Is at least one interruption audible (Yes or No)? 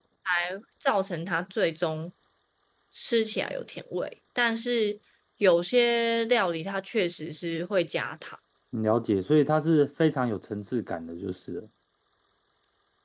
No